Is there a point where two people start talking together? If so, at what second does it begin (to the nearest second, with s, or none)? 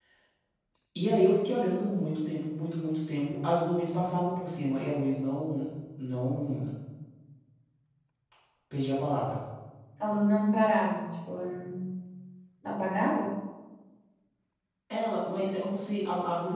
none